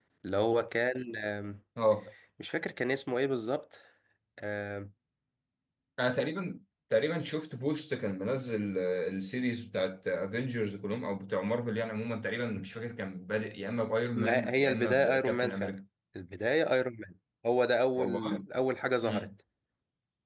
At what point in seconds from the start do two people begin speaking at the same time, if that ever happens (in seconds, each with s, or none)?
14.2 s